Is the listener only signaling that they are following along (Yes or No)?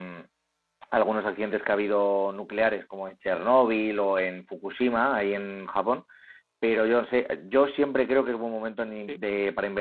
Yes